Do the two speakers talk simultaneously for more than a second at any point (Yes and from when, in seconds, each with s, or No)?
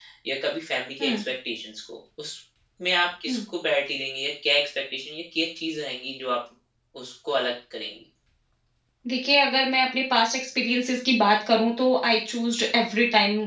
No